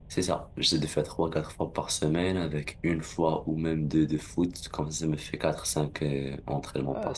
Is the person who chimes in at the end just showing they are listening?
No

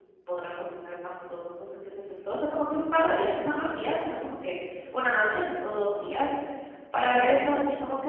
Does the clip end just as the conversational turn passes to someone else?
No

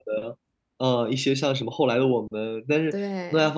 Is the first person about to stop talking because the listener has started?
No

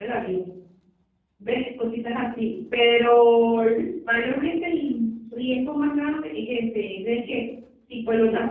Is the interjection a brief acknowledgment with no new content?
Yes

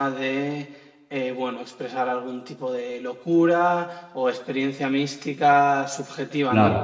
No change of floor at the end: Yes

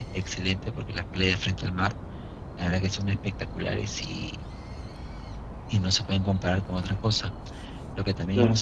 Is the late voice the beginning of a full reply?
No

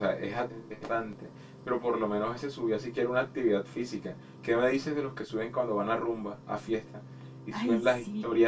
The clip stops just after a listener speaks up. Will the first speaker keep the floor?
Yes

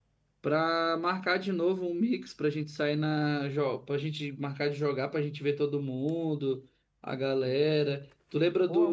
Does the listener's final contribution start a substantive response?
No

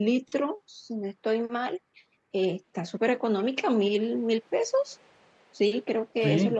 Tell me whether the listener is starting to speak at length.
Yes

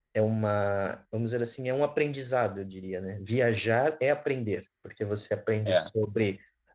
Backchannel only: Yes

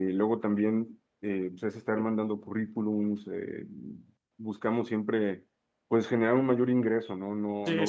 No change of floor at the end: No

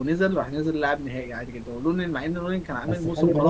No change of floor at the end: No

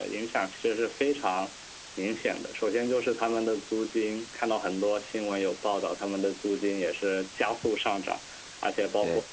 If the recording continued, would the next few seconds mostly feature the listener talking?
No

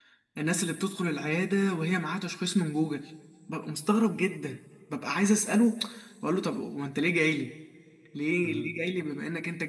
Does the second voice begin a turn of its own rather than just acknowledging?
No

